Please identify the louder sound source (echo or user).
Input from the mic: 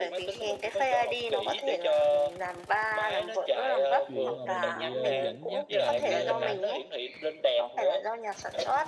echo